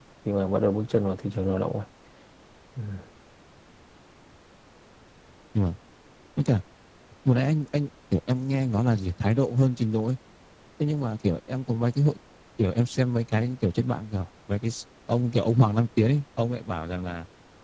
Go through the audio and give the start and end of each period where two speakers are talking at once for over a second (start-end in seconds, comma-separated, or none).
none